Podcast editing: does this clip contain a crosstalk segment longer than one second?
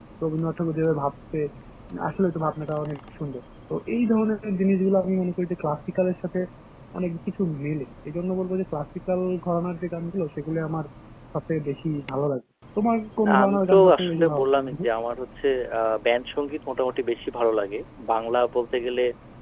Yes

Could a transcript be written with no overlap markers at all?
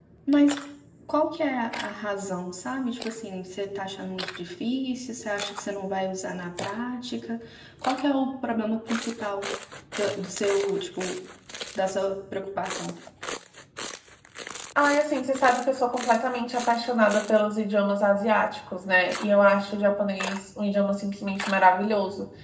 Yes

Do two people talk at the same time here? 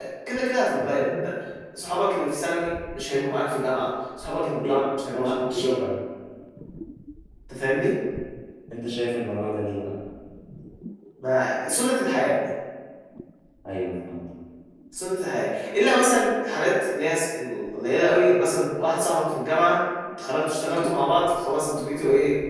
Yes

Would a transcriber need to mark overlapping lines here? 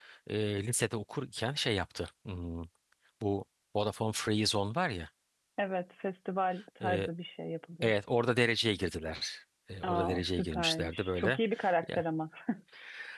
Yes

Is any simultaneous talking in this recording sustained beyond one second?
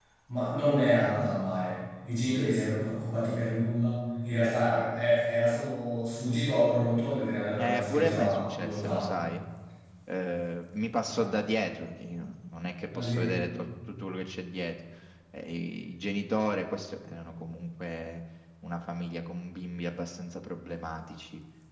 Yes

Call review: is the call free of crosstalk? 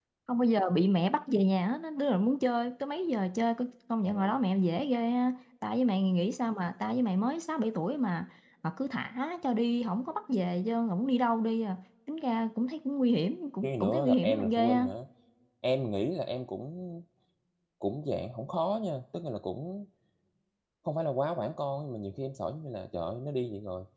No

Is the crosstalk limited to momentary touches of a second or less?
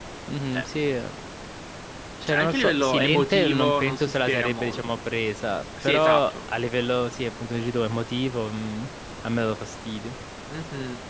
No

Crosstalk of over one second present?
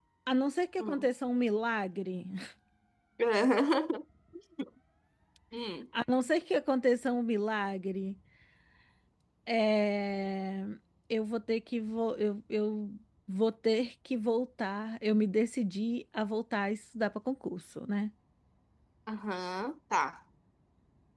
No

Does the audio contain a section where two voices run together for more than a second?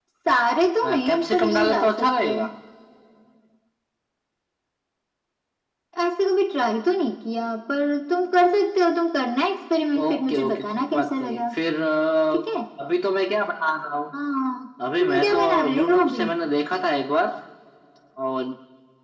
Yes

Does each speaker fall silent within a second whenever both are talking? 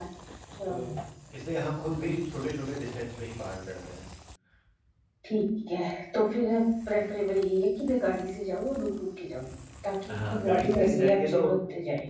No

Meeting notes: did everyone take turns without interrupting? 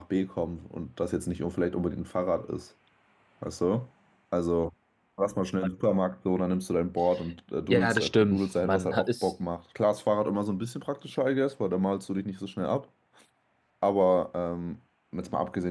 No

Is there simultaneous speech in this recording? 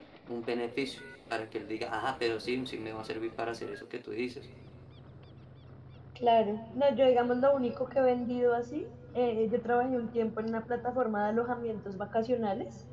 No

